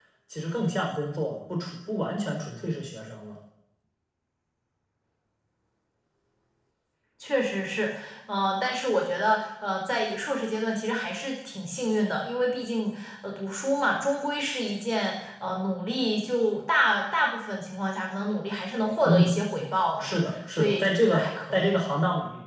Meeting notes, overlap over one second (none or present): present